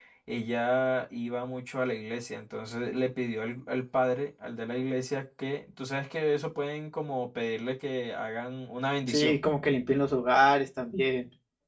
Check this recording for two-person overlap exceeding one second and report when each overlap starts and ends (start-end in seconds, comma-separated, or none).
none